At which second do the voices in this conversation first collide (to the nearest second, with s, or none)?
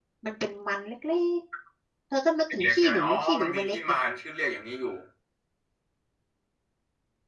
3 s